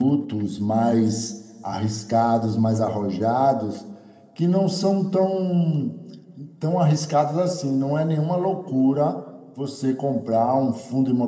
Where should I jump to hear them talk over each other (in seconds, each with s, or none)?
none